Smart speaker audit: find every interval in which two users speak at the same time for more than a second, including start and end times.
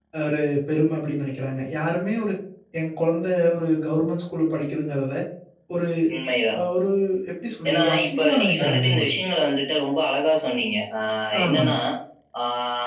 7.7-9.0

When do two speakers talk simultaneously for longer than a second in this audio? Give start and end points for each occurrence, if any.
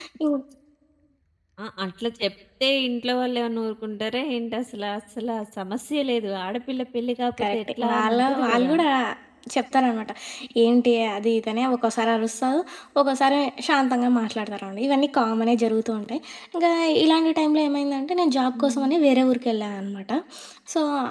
7.4-8.7

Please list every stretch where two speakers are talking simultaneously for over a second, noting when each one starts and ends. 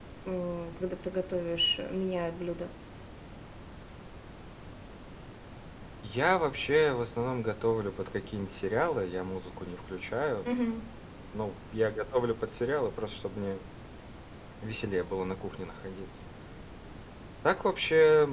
none

